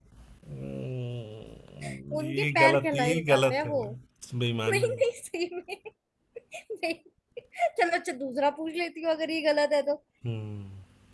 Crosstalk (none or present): present